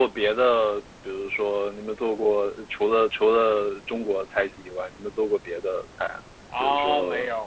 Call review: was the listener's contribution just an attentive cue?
No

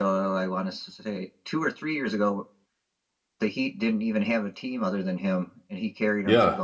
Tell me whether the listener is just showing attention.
No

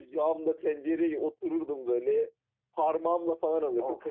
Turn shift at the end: No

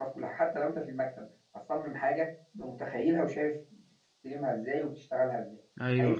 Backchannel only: No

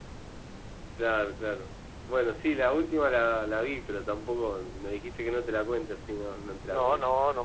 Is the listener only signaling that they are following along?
No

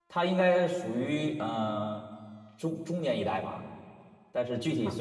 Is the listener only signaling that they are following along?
Yes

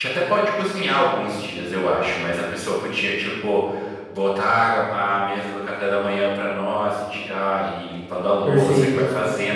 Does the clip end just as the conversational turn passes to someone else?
No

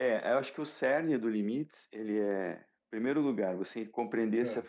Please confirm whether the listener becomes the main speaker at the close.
No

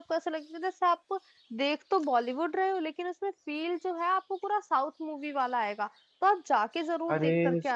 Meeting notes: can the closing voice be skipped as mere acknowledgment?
No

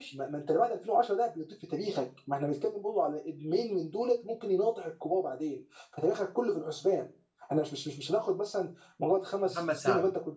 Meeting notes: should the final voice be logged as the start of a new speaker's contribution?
No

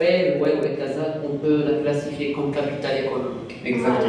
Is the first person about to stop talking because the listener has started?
Yes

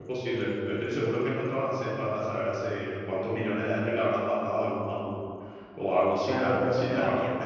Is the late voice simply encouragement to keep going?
No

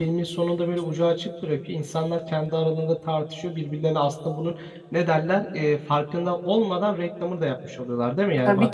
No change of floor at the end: No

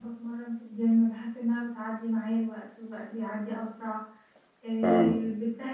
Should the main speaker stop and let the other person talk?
No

